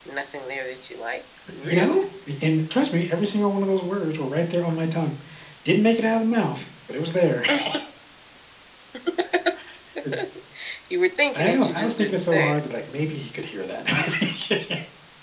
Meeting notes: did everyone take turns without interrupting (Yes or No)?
No